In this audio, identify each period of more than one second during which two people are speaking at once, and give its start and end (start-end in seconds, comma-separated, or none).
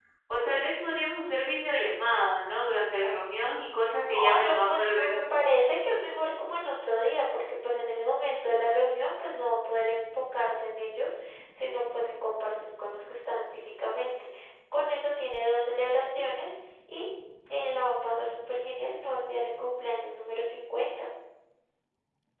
4.0-5.3